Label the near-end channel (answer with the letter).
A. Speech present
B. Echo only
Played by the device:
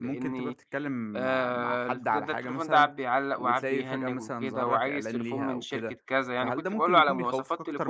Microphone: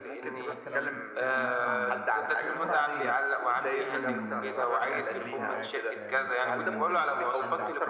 A